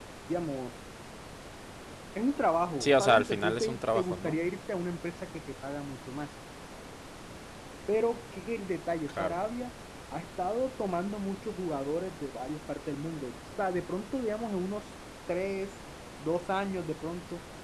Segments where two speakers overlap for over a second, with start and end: 2.8-4.4

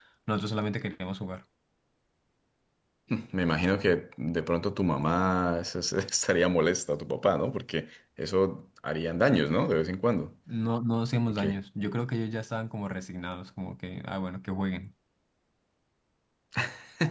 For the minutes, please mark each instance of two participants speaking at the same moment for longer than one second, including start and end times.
none

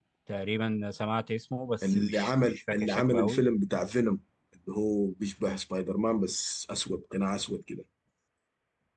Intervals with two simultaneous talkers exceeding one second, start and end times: 1.8-3.4

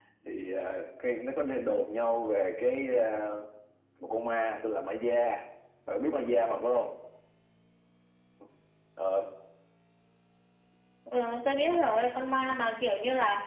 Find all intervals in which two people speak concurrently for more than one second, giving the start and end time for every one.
none

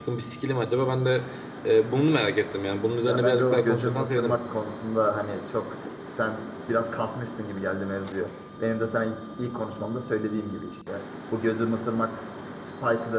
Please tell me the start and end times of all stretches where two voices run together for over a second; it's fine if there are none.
3.0-4.4

